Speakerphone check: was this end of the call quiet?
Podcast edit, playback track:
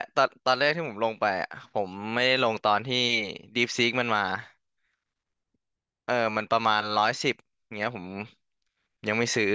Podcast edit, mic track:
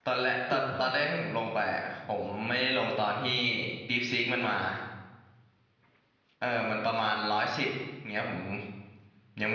No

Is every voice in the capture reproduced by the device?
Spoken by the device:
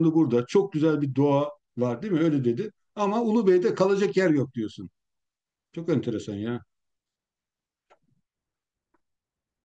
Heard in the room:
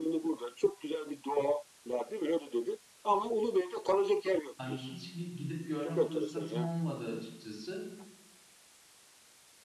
No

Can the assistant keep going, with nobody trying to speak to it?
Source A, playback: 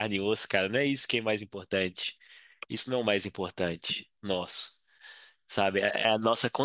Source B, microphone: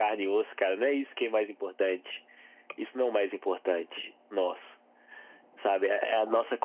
Yes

